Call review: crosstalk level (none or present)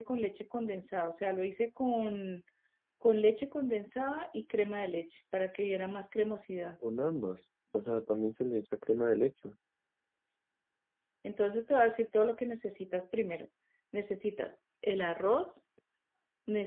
none